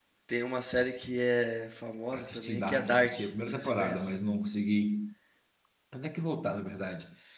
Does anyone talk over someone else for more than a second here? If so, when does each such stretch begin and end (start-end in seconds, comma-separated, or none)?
2.1-4.1